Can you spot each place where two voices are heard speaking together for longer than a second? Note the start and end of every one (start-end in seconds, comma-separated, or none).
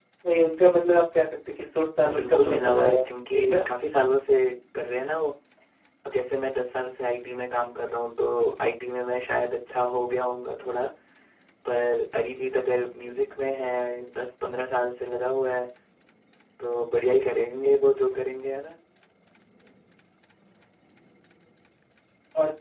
2.1-3.6